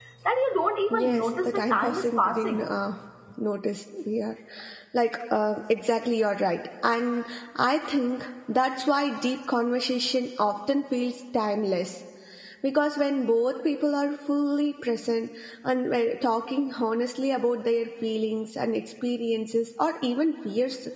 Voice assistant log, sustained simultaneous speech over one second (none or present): present